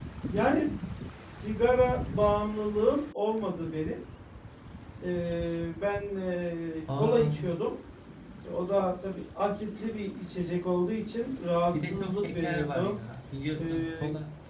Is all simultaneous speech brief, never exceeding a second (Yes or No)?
No